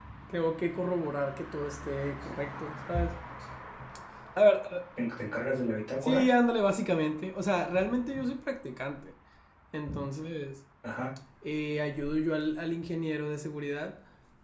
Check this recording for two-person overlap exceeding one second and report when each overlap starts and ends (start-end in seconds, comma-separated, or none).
none